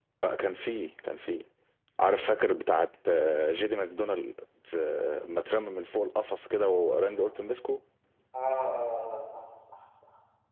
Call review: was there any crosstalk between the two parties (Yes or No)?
No